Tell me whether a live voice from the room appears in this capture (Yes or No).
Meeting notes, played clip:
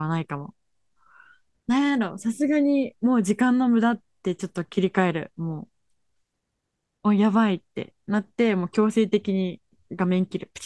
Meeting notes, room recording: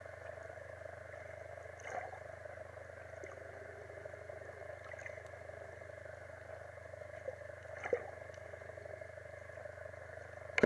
No